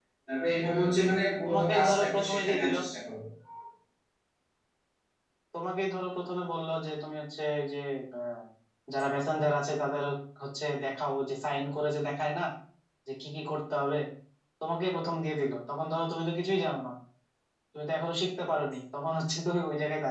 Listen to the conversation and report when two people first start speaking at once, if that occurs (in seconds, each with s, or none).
1.4 s